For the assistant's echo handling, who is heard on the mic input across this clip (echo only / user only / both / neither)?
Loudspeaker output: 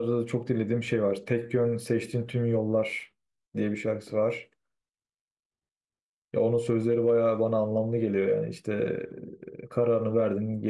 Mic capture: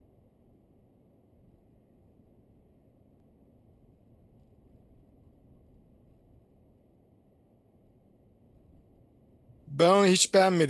user only